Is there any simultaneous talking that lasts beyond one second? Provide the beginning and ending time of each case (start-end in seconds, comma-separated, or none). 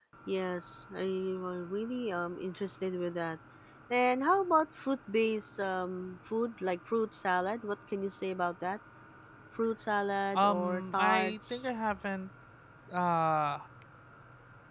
10.3-11.7